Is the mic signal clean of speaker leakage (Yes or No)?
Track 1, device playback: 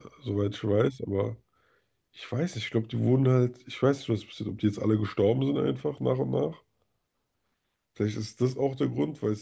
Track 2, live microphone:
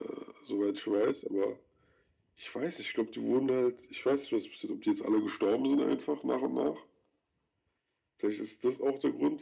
No